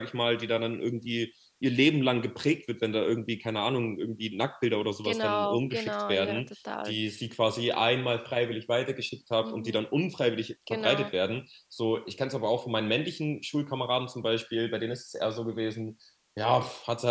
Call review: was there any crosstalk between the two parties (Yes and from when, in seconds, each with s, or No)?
Yes, from 5.0 s